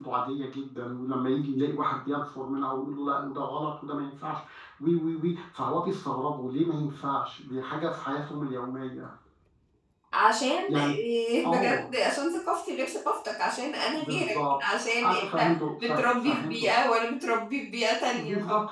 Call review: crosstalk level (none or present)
present